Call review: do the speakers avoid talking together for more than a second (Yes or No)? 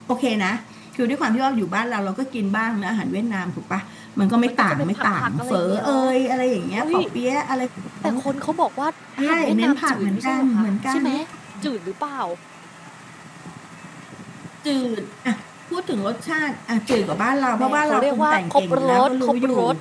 No